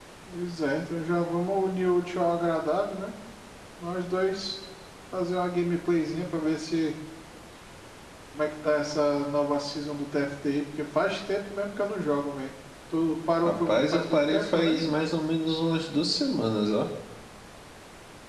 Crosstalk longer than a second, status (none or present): present